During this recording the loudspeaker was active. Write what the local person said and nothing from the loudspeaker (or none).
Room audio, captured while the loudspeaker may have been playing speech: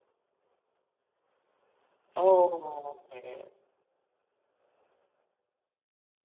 Oh oke.